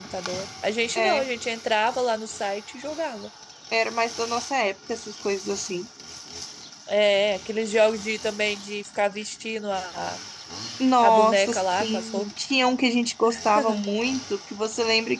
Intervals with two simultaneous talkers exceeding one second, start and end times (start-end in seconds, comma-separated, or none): 11.0-12.2